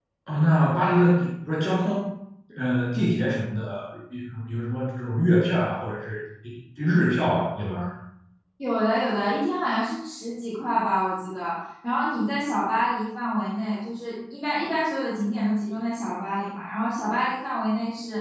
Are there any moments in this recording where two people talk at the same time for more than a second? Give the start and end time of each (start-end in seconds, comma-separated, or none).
none